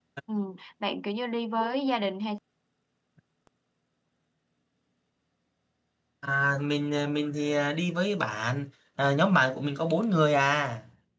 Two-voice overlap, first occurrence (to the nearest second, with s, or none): none